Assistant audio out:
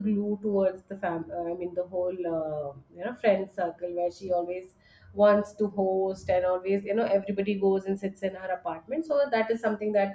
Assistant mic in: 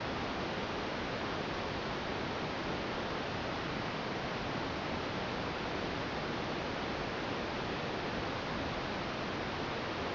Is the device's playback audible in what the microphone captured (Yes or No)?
No